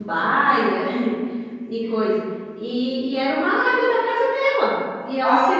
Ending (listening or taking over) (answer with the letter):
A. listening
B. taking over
A